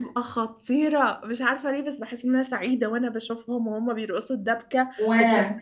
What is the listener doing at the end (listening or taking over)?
listening